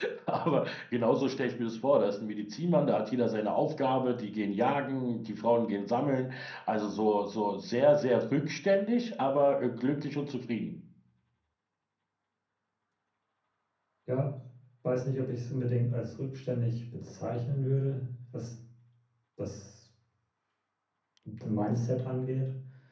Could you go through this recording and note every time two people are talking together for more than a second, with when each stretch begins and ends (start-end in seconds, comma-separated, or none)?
none